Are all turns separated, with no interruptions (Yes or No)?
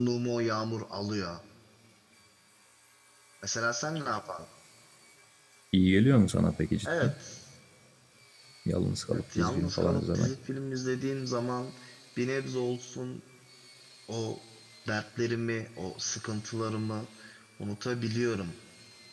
No